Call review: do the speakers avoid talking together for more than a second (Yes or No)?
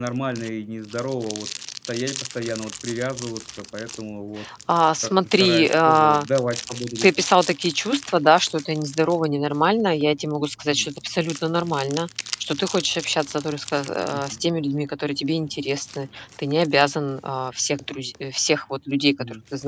No